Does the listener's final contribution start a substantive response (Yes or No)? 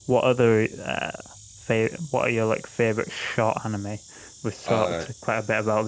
No